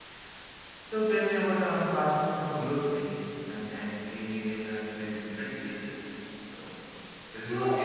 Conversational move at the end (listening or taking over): taking over